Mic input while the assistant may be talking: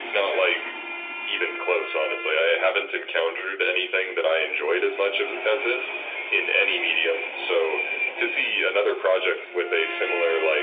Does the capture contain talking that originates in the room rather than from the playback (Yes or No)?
No